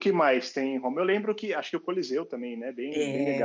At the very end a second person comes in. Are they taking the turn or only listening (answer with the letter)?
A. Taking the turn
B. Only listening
A